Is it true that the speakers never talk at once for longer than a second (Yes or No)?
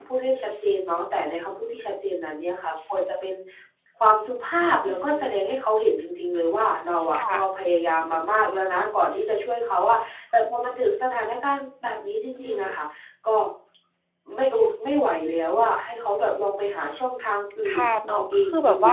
No